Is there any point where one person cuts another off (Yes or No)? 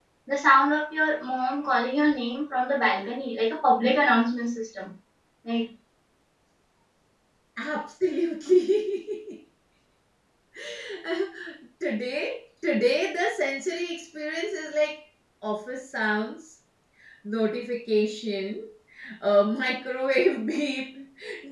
No